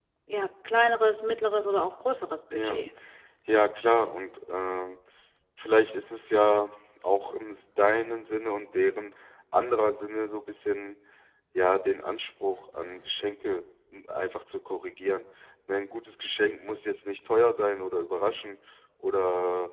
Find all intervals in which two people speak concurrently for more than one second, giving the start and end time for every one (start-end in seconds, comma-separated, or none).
none